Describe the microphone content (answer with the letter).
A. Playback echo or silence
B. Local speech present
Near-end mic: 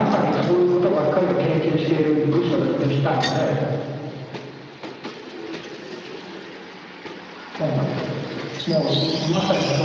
A